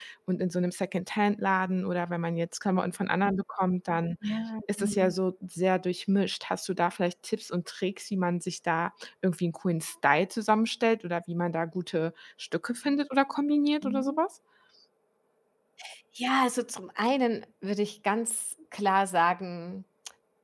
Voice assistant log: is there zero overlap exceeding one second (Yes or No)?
Yes